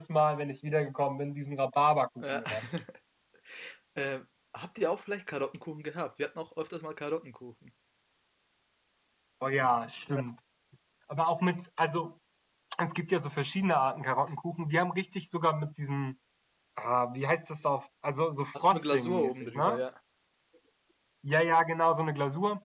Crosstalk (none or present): present